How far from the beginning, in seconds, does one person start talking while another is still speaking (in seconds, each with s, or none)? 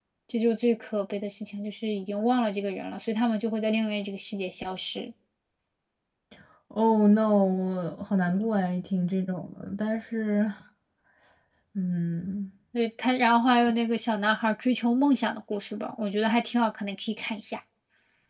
none